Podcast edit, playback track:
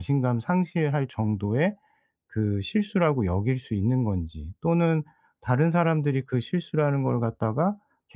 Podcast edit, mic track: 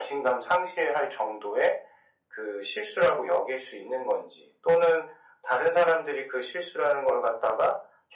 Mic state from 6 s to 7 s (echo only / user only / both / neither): echo only